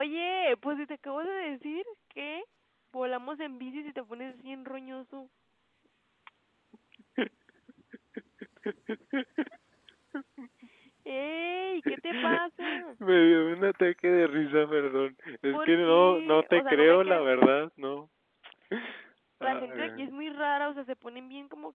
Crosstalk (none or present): present